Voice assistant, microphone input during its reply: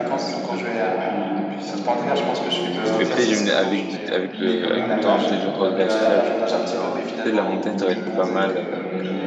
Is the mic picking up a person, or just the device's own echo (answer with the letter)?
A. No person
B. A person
B